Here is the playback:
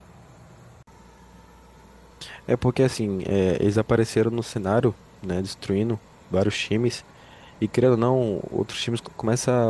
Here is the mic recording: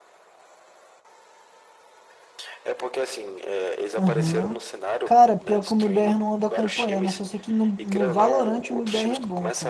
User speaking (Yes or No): Yes